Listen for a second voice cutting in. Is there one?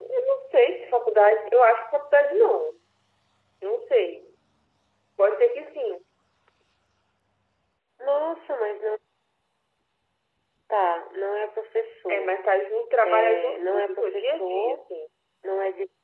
Yes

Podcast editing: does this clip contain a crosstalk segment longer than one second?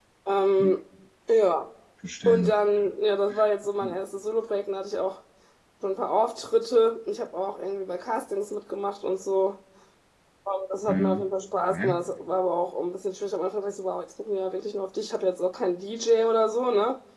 No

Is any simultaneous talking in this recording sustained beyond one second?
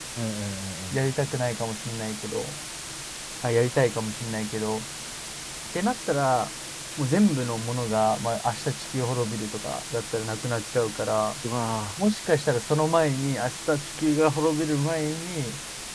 No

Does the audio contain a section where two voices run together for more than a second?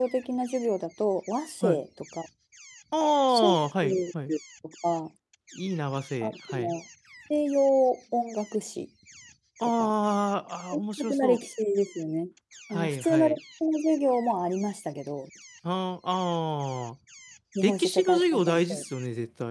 Yes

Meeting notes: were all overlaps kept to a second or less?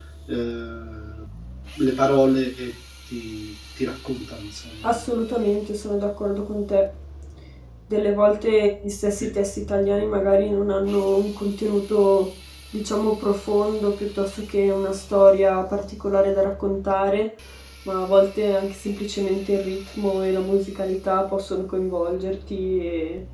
Yes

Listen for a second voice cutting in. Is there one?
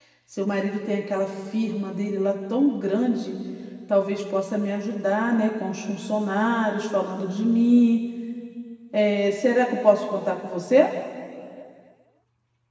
No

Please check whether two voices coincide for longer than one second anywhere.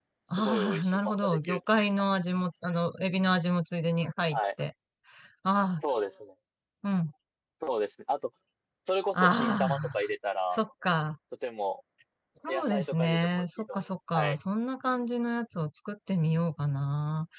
Yes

